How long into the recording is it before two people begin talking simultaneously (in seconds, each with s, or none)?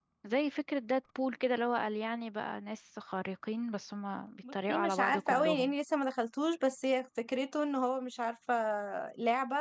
4.4 s